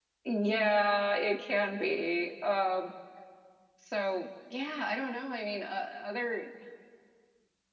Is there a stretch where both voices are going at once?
No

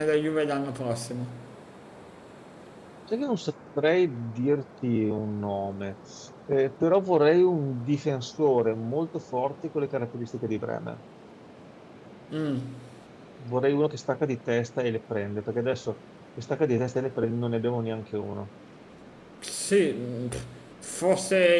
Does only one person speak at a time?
Yes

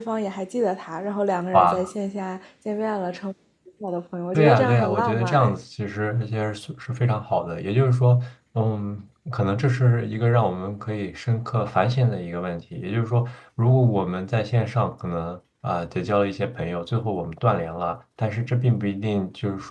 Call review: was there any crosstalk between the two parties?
Yes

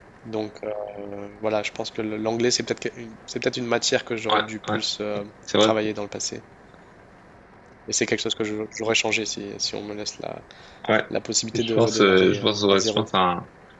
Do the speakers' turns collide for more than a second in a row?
Yes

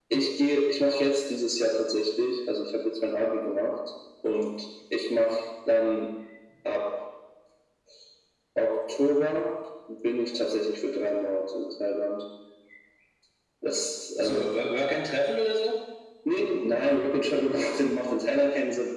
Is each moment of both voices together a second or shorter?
Yes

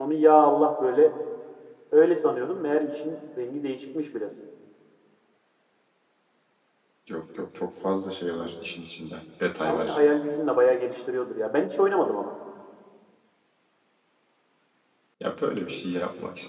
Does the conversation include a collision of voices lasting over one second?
No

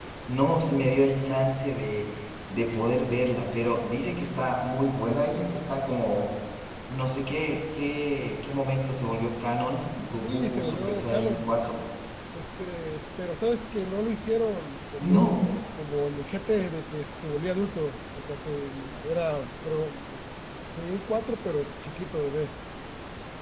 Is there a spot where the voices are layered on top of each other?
Yes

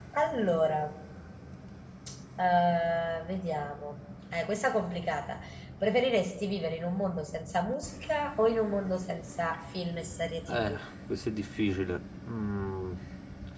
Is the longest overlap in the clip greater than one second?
No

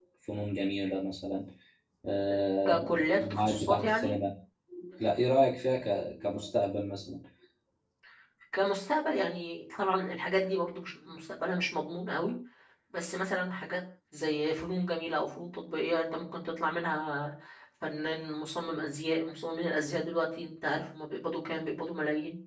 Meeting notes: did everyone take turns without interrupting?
No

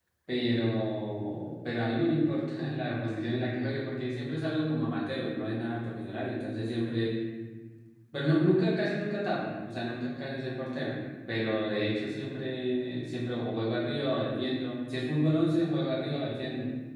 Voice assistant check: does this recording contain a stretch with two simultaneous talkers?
No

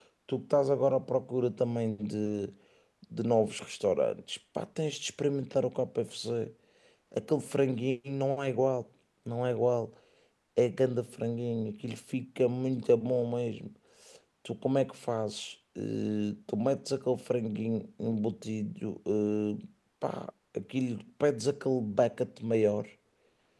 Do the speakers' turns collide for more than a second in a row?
No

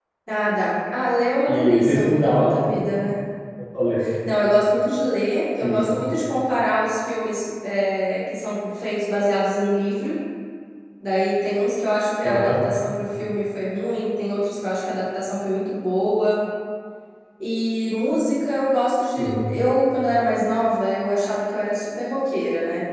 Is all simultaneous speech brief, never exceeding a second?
No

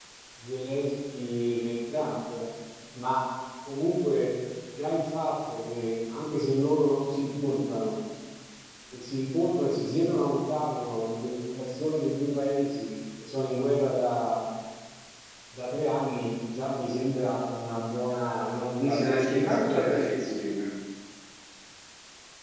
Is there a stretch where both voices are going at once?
Yes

